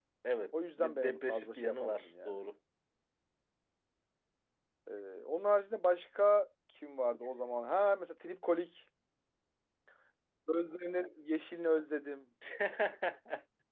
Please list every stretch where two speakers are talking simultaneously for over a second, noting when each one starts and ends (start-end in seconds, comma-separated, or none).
0.8-2.4